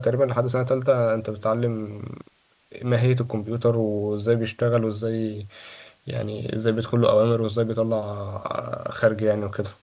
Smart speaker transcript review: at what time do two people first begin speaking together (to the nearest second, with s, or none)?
none